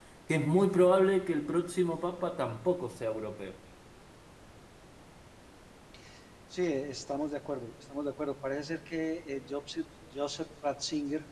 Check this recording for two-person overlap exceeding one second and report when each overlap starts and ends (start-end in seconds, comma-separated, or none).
none